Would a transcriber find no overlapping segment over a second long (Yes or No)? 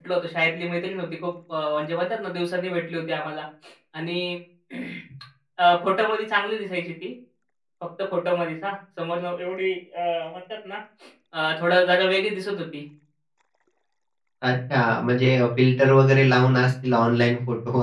Yes